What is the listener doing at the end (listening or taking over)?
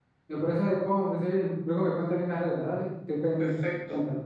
taking over